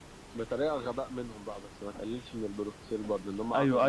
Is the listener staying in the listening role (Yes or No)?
No